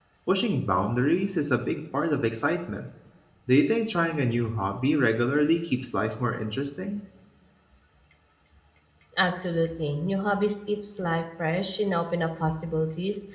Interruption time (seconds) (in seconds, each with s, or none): none